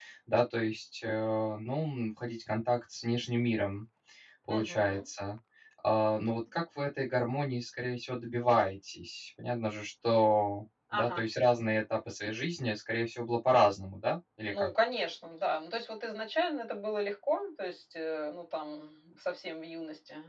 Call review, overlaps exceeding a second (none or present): none